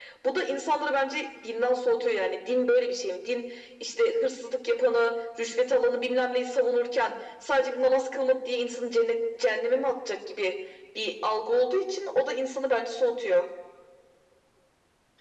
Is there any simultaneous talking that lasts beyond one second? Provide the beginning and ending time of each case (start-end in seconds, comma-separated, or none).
none